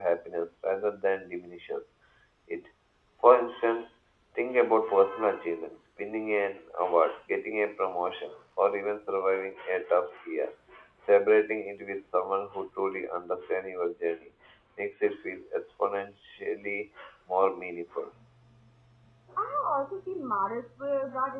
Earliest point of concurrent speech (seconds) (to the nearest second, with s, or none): none